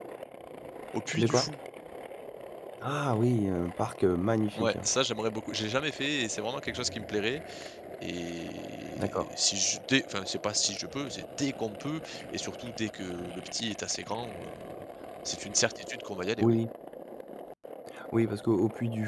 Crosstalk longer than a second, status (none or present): none